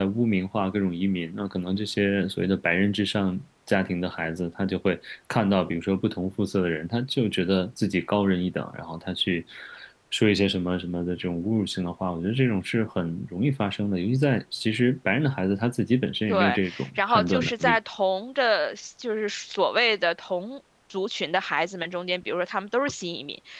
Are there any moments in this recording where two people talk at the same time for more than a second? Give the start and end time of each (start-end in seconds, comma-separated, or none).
16.3-17.8